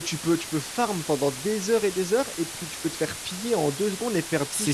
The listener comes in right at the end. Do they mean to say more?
Yes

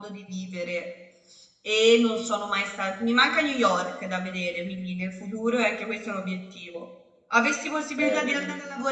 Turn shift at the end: No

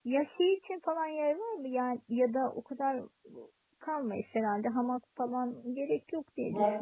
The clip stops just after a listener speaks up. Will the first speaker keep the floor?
No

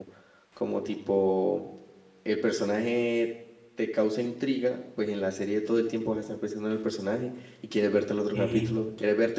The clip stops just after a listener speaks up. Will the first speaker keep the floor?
Yes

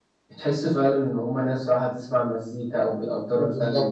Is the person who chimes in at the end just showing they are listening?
No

